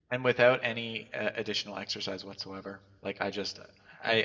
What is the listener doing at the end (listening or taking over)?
listening